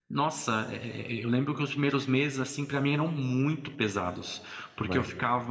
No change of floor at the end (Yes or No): Yes